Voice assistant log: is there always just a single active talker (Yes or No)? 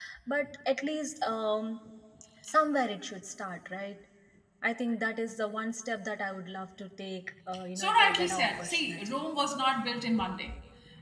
No